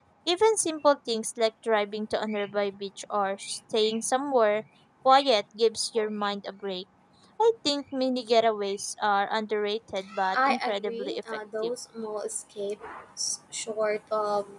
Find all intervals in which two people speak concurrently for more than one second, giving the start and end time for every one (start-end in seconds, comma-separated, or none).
10.3-11.7